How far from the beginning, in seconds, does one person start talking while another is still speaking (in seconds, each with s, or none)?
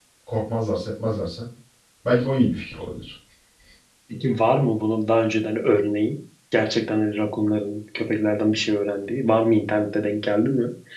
none